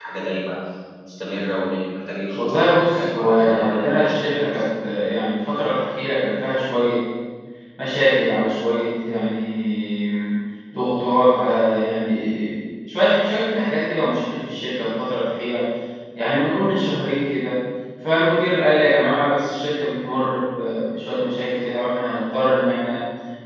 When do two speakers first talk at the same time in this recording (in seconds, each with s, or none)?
2.4 s